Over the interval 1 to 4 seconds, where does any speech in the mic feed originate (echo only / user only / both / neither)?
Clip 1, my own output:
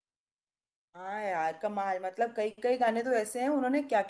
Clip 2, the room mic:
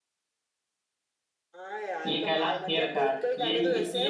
both